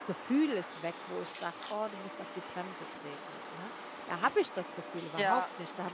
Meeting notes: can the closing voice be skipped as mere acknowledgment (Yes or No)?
Yes